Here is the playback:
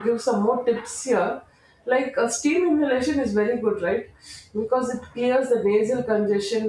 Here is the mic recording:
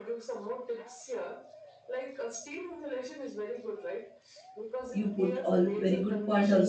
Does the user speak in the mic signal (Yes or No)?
Yes